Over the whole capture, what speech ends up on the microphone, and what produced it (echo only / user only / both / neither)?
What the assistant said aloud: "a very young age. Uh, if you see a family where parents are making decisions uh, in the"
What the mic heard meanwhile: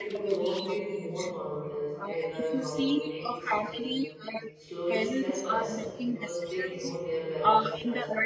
both